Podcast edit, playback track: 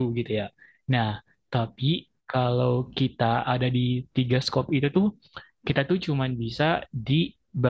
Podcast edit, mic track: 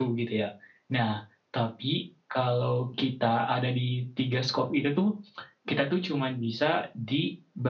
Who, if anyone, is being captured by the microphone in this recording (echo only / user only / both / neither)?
echo only